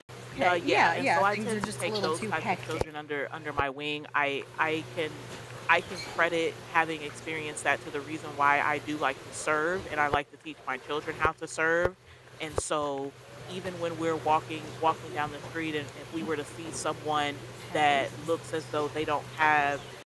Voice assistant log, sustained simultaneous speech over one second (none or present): present